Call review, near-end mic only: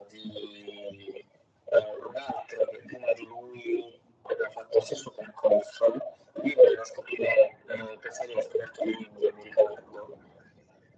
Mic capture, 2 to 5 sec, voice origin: echo only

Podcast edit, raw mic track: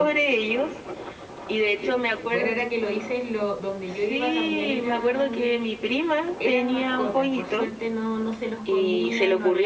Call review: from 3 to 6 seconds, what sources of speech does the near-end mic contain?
both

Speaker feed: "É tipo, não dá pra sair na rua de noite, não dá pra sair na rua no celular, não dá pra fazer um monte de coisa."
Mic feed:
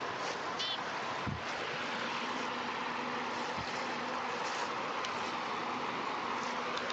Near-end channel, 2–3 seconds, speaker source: neither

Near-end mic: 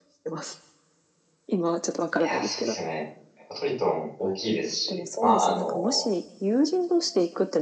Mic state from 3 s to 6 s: both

